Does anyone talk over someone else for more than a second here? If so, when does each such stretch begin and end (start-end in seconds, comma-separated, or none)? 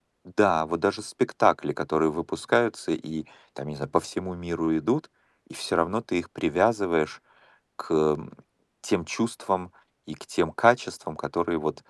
none